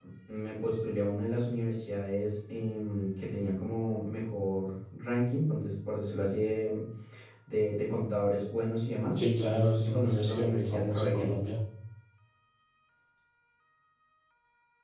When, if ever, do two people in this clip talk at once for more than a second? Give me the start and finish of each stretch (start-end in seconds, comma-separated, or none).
9.2-11.3